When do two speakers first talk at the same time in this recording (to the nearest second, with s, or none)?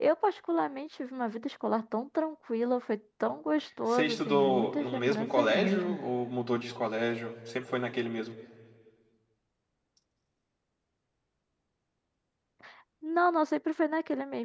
4 s